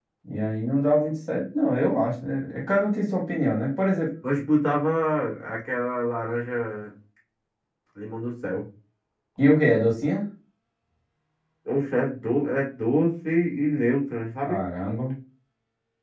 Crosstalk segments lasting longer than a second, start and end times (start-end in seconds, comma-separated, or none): none